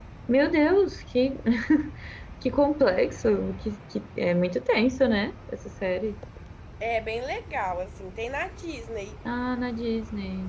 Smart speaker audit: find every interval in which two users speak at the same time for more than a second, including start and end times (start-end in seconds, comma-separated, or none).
none